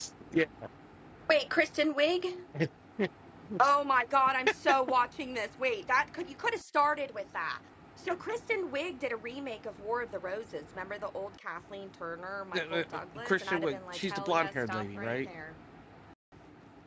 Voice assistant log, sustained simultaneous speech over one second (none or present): present